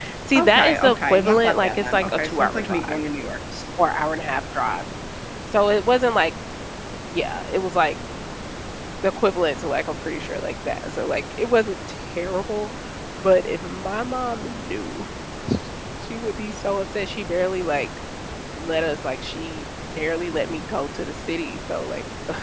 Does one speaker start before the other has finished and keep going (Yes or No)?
Yes